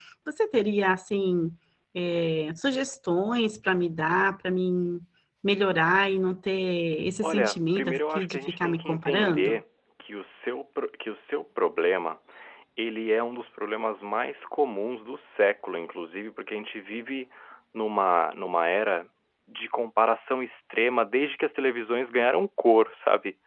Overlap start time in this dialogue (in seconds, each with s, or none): 7.2 s